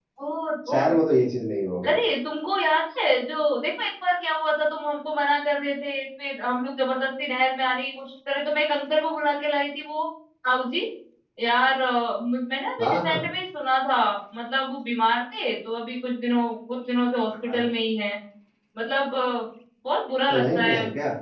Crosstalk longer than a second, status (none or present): none